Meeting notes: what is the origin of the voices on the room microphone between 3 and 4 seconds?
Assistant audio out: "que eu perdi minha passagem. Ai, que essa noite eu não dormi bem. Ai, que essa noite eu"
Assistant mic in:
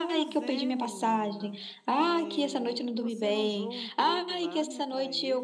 both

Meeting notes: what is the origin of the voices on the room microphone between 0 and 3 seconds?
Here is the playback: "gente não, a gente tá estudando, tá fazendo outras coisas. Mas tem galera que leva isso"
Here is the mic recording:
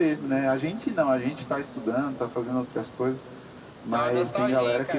echo only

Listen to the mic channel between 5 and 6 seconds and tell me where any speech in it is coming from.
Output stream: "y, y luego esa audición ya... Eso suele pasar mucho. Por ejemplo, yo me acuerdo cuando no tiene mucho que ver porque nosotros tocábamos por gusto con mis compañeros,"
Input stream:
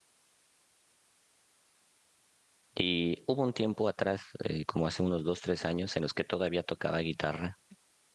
user only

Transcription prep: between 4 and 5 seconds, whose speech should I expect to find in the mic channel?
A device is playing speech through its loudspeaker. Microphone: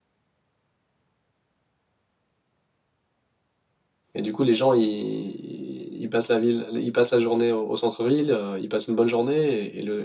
user only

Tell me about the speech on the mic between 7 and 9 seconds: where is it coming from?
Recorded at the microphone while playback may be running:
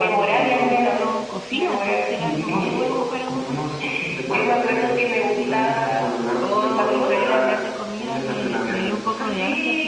both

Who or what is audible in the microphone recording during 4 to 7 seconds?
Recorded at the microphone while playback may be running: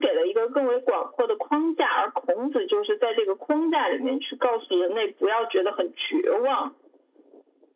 echo only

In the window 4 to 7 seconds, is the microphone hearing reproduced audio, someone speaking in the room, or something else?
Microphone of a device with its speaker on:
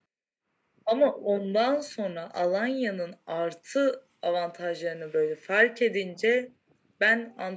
echo only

